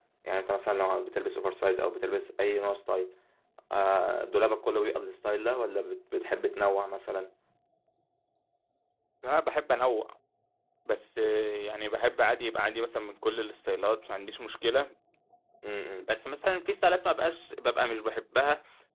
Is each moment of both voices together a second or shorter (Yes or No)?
Yes